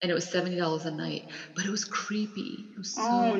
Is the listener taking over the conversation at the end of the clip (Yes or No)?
Yes